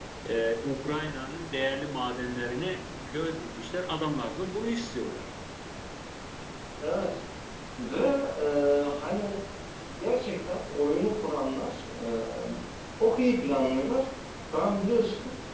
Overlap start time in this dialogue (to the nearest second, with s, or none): none